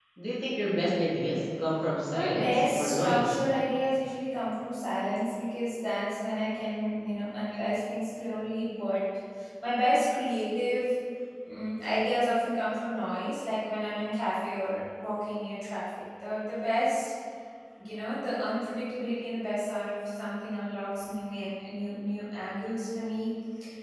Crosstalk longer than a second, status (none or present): present